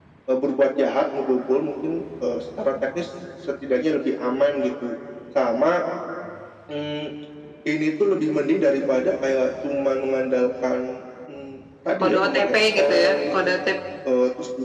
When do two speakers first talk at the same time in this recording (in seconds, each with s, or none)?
12.0 s